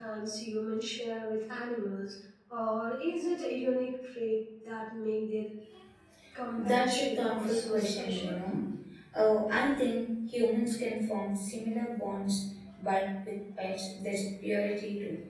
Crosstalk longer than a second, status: present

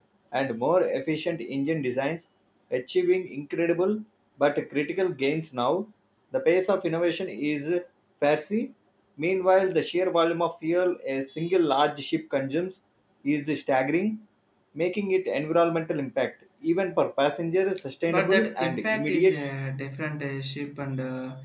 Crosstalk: present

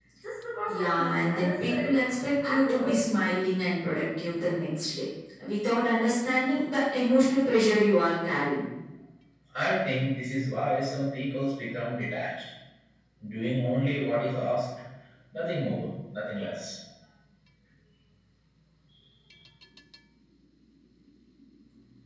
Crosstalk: present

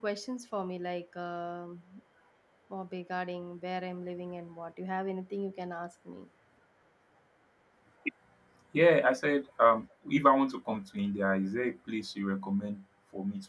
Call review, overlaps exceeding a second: none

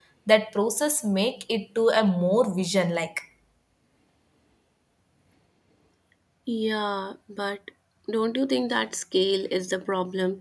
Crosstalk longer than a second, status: none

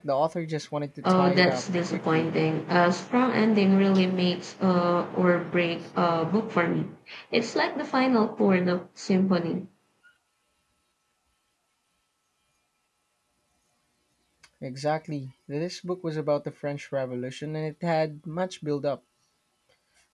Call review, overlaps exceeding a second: present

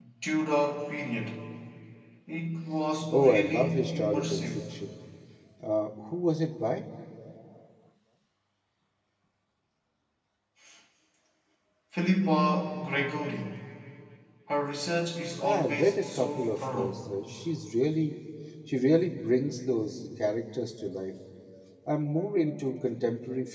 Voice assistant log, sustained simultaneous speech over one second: present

